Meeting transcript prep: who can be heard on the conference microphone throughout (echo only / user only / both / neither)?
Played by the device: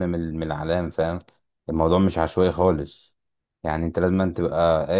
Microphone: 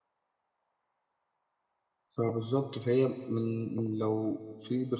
user only